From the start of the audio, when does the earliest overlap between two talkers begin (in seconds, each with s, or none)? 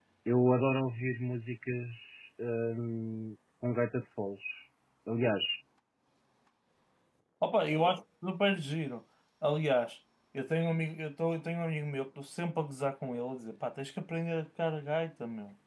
none